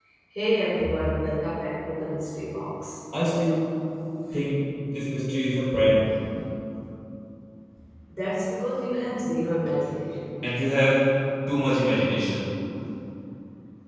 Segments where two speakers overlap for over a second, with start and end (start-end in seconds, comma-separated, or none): none